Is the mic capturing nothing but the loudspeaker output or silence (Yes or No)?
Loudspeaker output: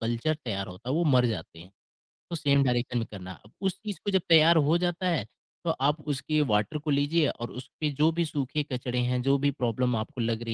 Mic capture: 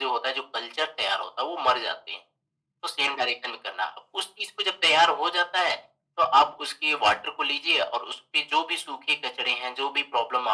Yes